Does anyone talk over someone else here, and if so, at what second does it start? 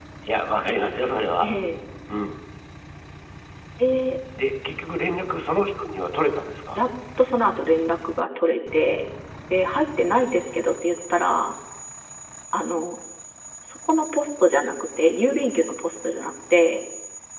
none

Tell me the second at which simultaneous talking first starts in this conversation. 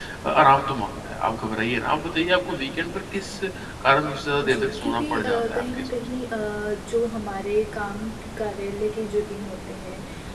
4 s

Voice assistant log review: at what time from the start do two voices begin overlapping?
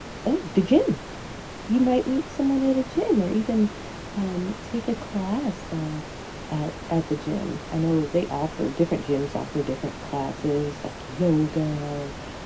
none

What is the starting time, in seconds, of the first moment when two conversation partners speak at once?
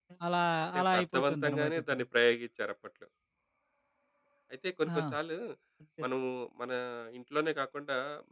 1 s

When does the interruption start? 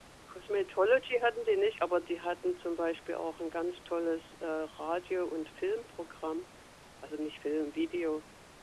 none

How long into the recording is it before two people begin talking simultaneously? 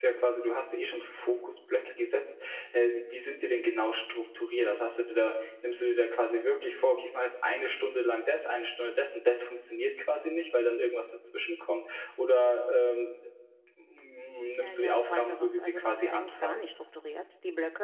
15 s

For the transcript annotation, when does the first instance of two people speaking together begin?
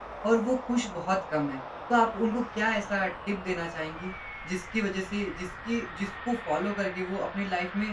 none

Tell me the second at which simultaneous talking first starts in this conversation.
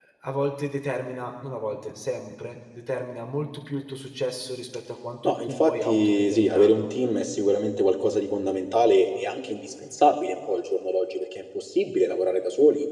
5 s

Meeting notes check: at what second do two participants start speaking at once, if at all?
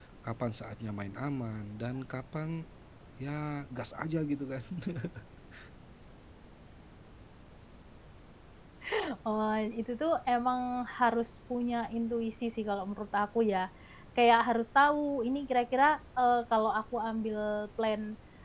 none

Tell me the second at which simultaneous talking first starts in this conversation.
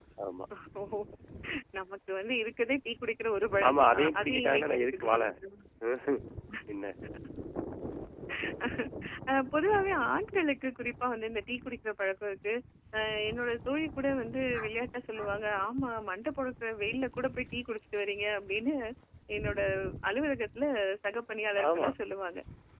4 s

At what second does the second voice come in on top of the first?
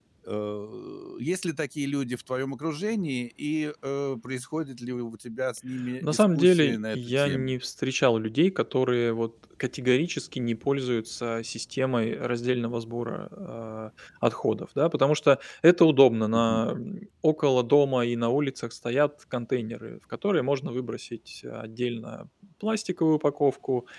6 s

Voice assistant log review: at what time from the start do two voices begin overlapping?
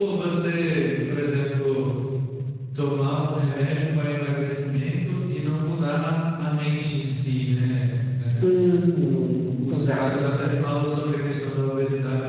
9 s

